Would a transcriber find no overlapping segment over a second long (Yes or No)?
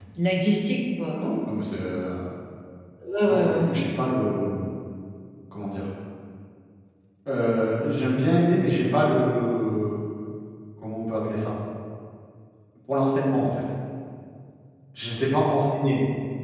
Yes